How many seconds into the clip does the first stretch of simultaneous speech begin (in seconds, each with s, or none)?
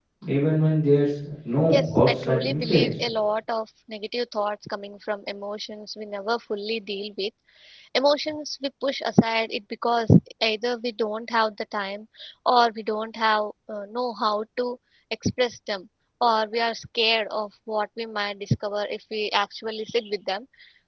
1.7 s